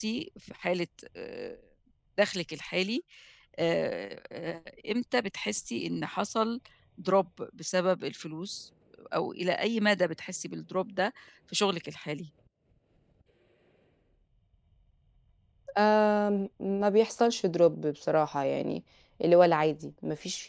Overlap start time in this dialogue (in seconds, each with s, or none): none